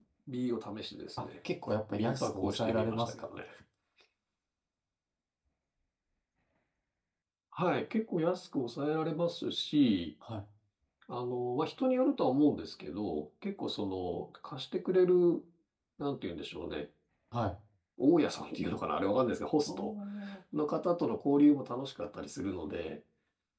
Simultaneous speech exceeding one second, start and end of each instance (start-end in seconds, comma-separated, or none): 1.9-3.4